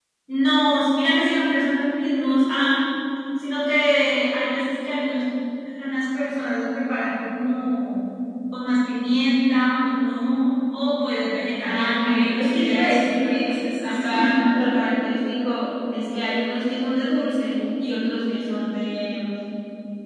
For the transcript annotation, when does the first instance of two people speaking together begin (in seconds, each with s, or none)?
11.7 s